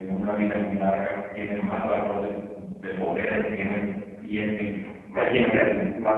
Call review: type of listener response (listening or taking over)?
taking over